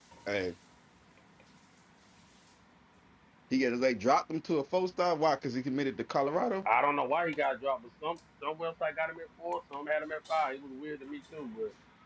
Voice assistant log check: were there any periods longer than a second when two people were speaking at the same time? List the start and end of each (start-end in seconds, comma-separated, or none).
none